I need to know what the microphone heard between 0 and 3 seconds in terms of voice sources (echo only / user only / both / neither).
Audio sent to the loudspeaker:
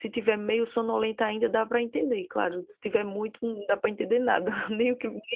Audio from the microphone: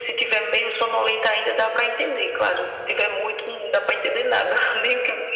echo only